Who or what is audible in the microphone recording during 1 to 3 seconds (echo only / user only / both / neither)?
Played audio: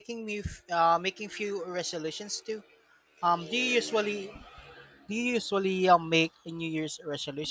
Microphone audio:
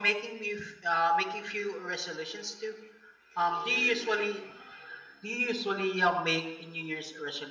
echo only